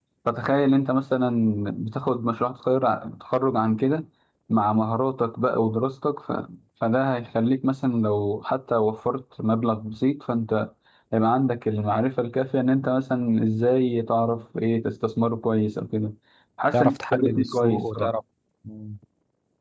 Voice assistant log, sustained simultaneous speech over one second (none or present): present